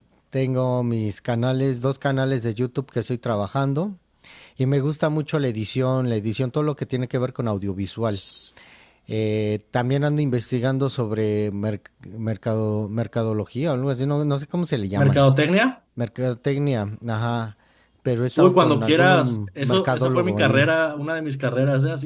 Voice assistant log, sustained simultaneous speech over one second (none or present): present